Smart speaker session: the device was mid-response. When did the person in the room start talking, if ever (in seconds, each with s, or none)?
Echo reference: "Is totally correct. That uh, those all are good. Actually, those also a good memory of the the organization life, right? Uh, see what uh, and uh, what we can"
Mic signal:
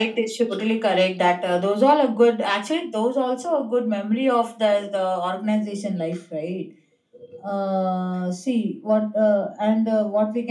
none